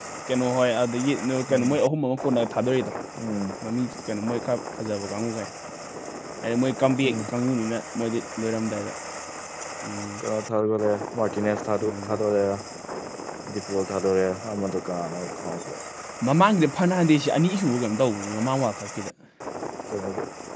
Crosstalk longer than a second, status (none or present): none